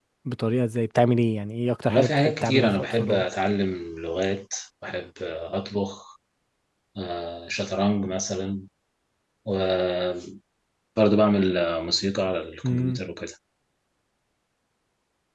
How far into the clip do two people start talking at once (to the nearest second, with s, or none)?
2 s